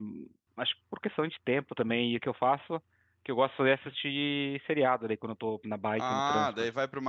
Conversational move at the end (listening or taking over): taking over